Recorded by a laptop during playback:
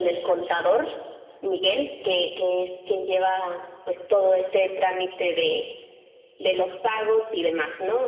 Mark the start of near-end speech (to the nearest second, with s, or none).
none